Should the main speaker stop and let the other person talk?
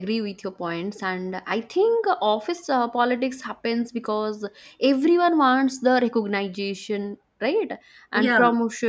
No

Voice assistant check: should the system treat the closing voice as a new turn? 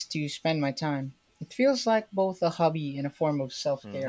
Yes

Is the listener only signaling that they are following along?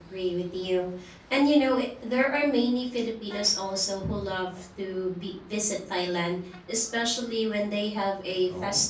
Yes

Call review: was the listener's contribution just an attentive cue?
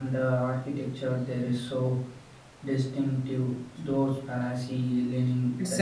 No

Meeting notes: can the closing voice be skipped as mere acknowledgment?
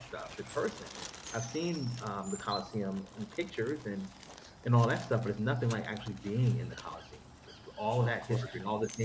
Yes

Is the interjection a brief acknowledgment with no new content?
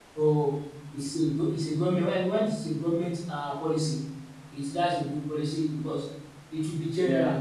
Yes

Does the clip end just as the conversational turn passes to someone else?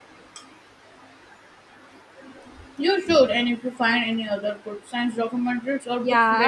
Yes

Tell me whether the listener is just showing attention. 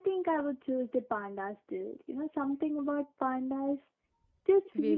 No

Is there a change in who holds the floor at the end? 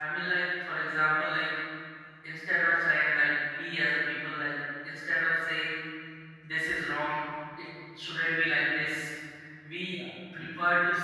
No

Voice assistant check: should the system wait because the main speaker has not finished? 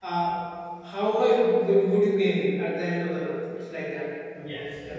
No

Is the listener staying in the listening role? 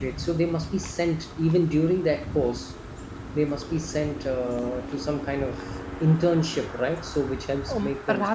No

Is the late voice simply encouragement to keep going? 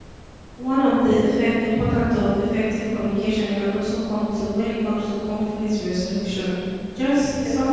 Yes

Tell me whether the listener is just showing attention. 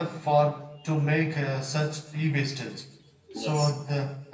Yes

